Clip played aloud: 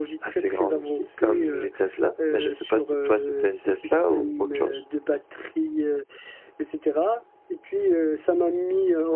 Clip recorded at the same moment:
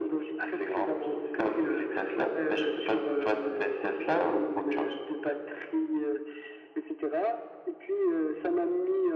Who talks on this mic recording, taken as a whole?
echo only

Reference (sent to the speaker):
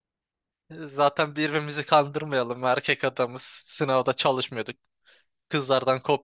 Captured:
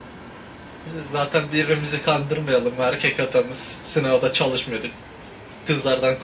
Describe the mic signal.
echo only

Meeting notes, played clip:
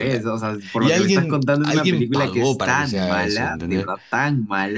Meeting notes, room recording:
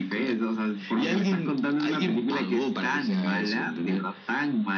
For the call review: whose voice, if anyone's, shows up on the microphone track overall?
echo only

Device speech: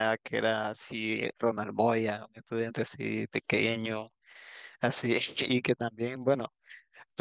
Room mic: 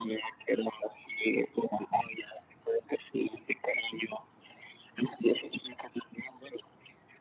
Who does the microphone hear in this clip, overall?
echo only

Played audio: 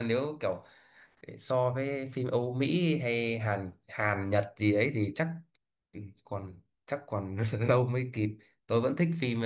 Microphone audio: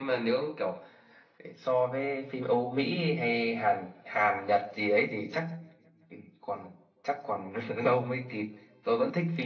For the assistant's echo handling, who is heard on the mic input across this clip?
echo only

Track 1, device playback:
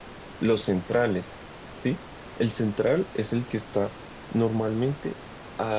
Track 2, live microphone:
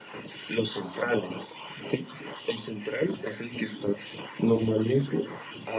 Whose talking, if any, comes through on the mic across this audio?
echo only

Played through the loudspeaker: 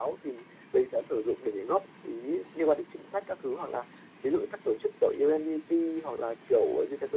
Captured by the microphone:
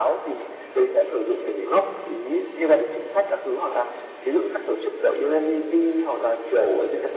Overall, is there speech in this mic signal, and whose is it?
echo only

